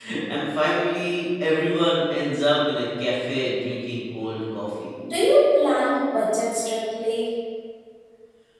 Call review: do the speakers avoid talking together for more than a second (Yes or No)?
Yes